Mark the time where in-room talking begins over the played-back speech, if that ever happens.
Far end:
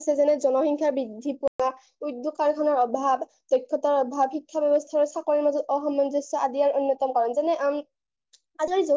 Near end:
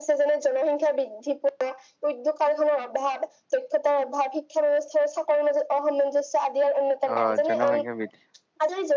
7.1 s

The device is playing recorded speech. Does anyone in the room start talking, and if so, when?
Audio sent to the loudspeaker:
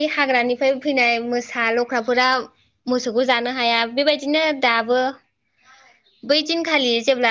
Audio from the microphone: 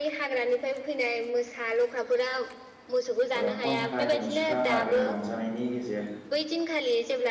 3.4 s

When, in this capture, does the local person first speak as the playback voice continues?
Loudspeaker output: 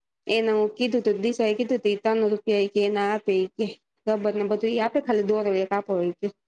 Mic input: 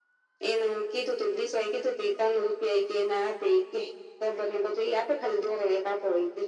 none

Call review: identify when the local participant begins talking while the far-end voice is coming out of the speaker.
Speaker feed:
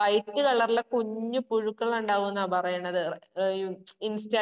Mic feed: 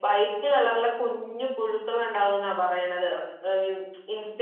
none

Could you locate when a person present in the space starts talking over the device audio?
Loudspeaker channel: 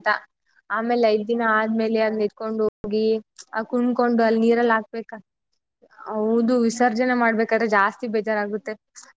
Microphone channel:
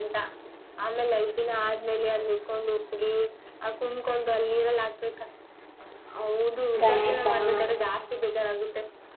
6.8 s

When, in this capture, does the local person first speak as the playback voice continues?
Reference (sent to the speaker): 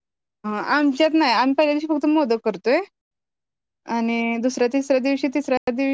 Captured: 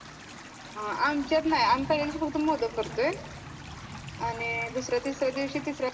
none

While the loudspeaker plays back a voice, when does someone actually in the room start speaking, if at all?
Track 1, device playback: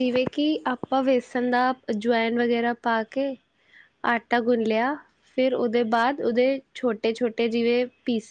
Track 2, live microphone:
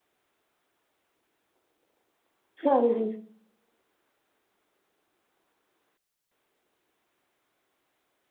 2.7 s

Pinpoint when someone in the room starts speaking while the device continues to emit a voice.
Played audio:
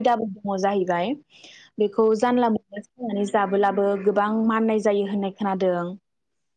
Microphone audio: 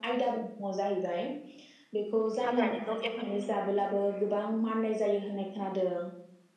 2.5 s

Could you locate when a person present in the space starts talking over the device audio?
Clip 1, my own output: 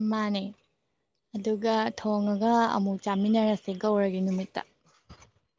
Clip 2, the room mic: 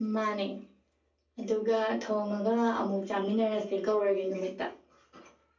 none

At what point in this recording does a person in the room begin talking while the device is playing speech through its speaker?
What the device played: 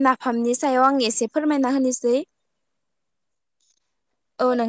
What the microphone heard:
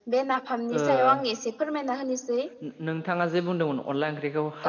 0.8 s

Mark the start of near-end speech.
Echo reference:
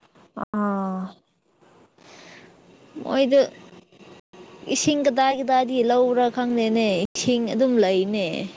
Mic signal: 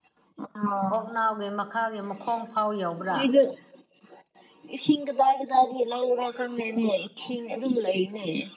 0.9 s

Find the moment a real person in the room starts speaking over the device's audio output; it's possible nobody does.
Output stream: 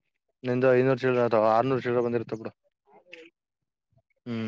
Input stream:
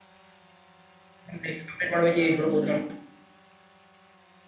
1.3 s

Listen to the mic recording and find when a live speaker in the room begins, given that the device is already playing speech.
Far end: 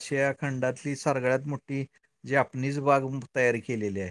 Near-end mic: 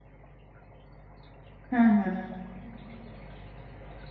1.7 s

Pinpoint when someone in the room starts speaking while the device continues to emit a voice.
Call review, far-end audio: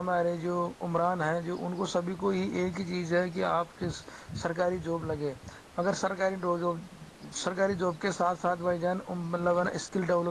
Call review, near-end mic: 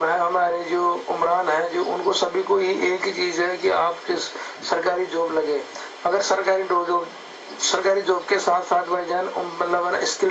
none

